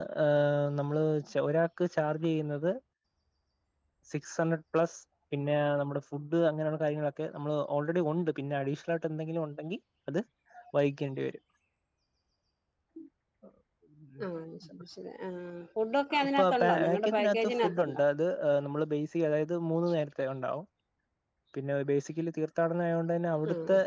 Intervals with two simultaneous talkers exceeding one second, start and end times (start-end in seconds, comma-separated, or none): 16.2-17.8